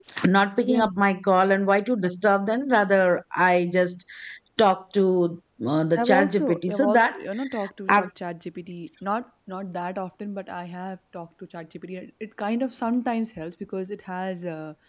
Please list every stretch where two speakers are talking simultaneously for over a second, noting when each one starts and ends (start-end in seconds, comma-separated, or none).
6.0-7.2